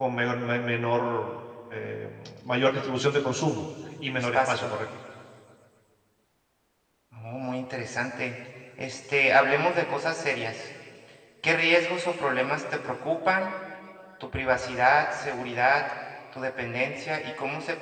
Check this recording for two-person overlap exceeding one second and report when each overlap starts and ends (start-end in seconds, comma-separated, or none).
none